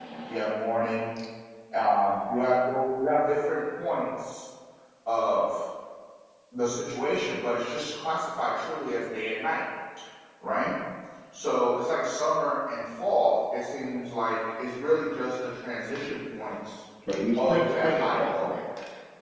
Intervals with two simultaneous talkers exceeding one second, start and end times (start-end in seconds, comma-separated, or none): 17.4-18.6